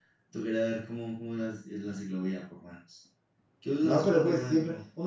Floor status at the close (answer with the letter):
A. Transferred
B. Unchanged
A